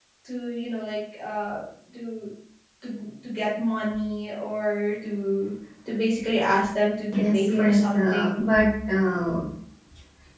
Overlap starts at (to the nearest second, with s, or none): 7 s